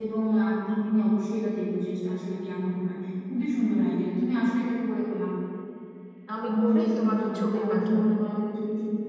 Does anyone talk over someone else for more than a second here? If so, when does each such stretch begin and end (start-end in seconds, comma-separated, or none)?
6.4-8.1